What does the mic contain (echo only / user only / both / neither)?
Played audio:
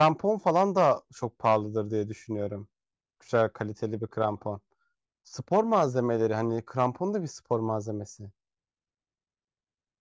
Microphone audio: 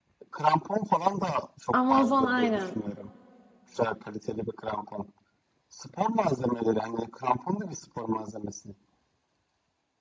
both